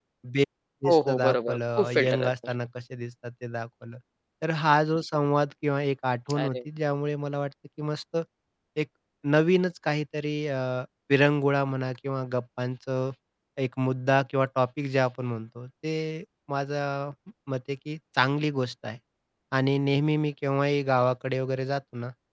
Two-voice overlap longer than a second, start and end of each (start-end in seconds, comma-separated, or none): 0.9-2.5